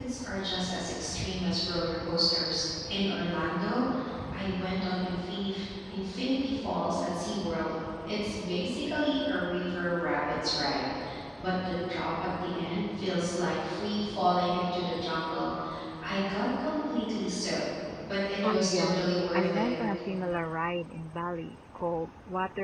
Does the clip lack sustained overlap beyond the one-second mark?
No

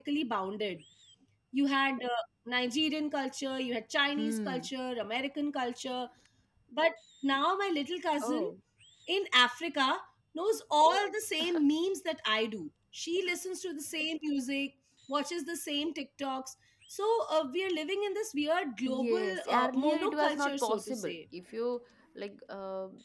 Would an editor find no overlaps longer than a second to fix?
No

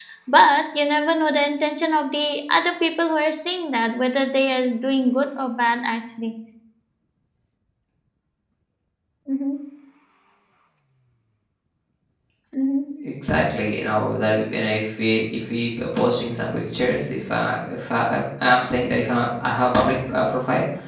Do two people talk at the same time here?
No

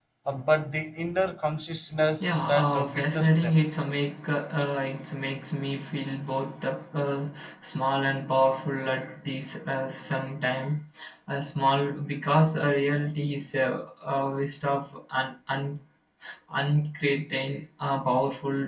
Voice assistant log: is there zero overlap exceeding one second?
No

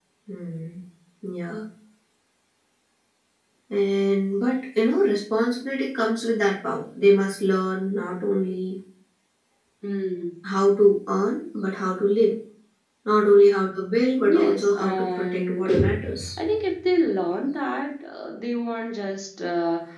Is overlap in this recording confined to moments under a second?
No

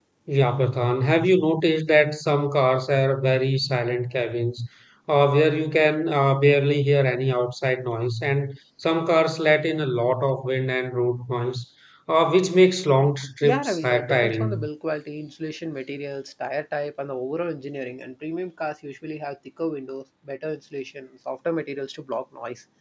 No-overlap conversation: No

